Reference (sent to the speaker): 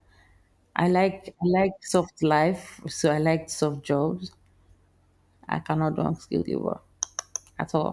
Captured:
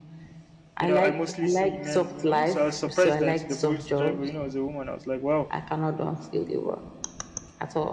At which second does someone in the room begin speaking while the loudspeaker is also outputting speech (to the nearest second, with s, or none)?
1 s